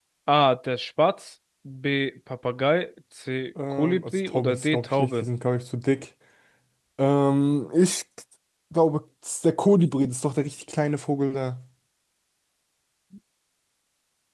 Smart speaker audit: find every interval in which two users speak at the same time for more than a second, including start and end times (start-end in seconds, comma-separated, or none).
3.7-5.2